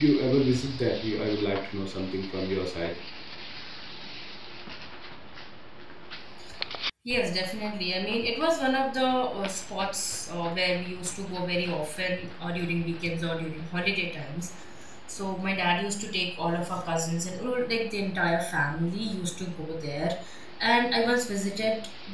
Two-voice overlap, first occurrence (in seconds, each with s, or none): none